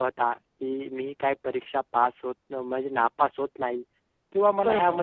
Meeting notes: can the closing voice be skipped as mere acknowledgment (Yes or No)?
Yes